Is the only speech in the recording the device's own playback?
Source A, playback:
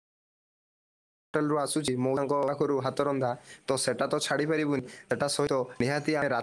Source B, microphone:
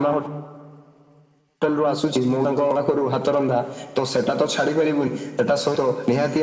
Yes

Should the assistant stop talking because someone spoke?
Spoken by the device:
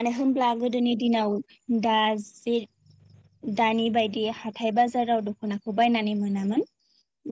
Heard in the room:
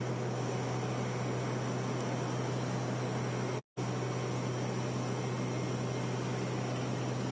No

